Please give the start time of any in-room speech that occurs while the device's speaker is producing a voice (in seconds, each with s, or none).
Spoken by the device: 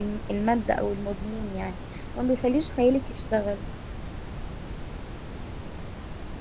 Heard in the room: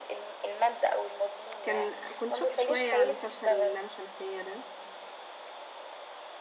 1.6 s